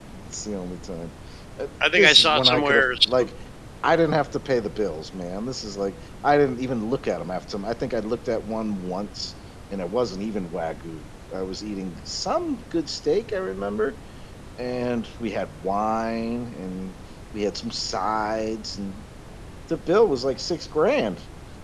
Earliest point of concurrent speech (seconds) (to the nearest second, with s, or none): 2 s